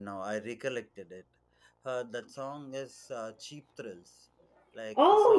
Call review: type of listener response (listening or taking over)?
taking over